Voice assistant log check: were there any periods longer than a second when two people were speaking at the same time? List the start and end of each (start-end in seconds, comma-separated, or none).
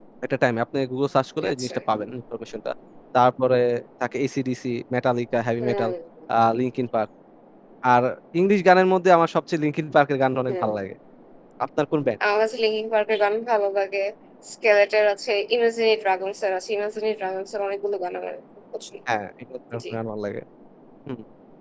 none